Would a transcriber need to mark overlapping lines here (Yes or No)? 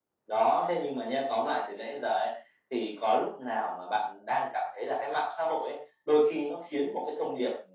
No